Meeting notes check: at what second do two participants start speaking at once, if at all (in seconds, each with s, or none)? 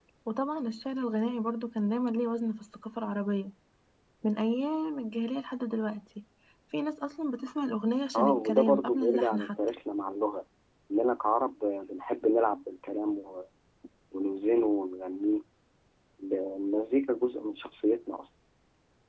8.1 s